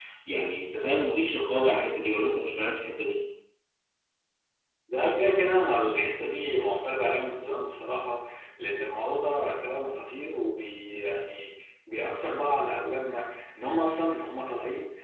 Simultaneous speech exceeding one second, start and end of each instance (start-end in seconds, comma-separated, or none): none